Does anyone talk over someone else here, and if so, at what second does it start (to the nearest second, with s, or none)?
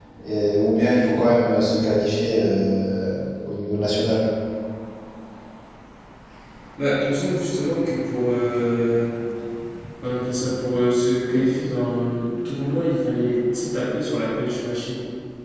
none